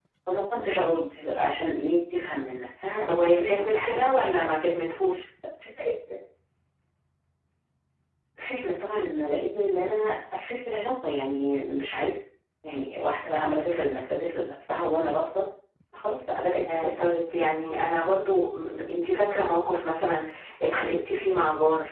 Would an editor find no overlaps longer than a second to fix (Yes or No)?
No